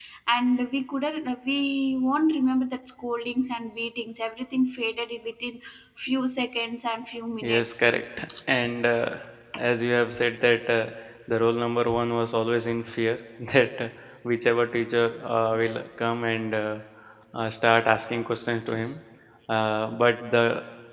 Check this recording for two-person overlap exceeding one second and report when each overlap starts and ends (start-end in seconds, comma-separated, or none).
none